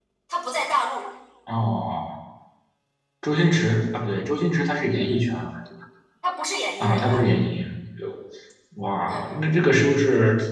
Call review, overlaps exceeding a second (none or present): none